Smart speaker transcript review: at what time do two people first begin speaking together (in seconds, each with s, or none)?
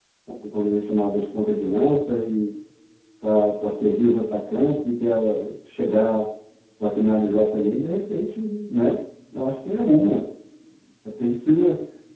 none